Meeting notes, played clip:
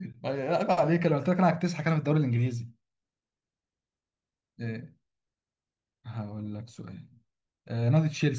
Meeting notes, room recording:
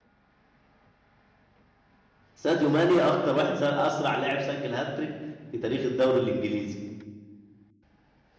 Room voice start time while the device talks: 2.3 s

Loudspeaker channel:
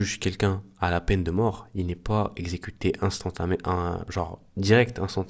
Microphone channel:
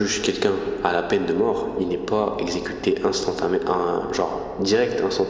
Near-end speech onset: none

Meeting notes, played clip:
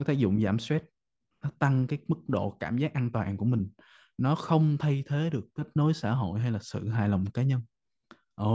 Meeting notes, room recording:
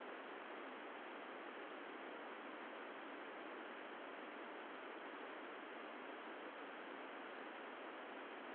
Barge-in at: none

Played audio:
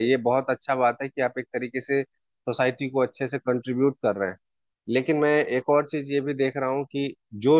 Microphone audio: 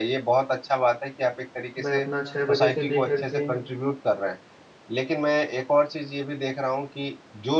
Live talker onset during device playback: 1.8 s

